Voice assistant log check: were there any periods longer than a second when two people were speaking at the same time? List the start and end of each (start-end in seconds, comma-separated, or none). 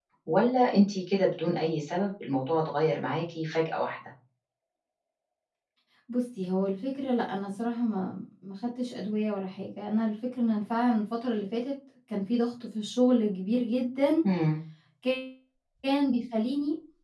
none